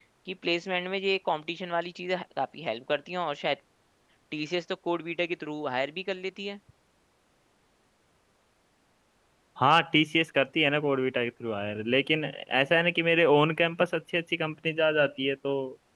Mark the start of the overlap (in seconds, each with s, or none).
none